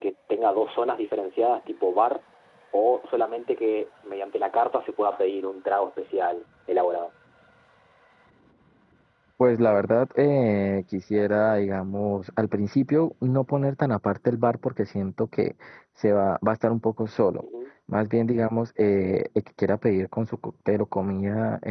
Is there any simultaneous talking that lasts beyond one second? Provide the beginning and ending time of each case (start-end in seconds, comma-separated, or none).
none